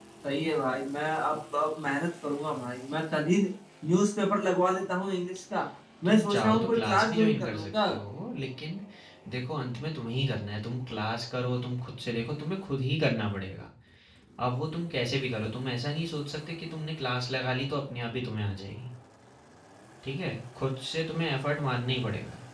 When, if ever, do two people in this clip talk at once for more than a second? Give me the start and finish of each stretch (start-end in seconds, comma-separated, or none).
6.0-7.7